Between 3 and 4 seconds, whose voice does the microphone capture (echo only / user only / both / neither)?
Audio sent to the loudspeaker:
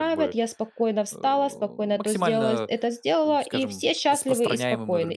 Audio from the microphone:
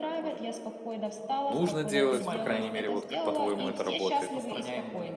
both